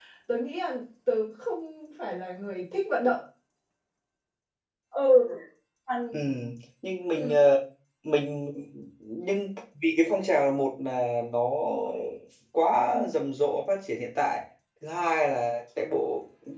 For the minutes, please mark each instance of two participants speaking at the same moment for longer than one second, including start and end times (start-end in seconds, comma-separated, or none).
none